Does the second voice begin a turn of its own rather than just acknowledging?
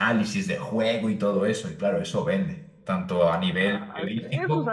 Yes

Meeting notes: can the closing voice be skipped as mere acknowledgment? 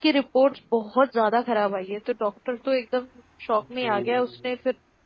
Yes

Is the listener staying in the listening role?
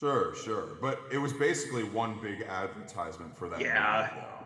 No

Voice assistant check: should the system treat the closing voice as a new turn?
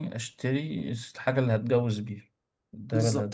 Yes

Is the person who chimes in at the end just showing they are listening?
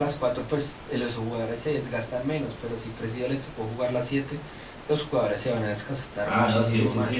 No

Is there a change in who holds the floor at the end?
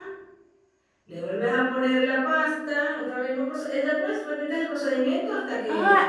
Yes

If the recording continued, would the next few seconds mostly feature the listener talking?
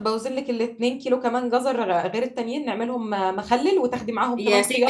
Yes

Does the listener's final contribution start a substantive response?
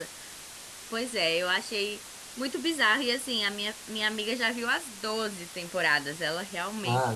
Yes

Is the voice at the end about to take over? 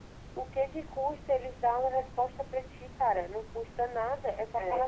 No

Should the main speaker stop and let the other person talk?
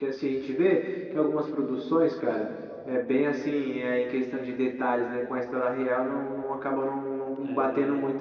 No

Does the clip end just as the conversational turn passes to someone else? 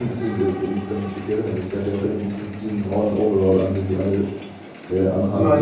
Yes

